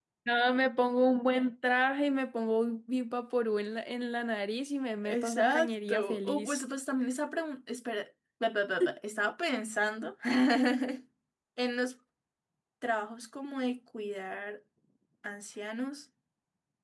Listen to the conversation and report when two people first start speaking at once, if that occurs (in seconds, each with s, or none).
5.0 s